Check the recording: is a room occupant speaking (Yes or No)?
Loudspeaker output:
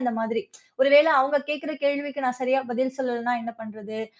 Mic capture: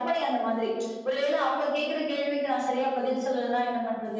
No